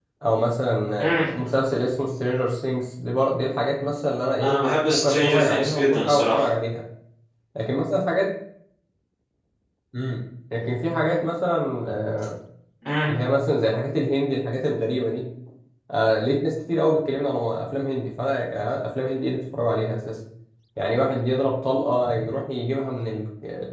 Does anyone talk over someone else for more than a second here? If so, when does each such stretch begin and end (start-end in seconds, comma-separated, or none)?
4.9-6.5